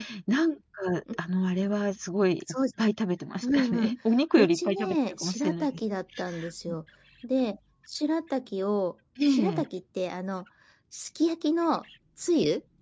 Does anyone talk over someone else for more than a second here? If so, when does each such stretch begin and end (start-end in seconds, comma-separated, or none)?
4.3-5.7